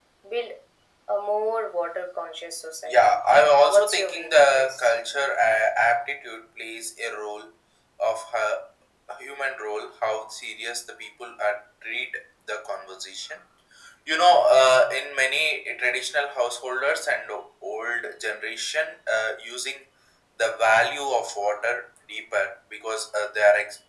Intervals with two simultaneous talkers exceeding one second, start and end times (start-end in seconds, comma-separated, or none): 3.7-4.9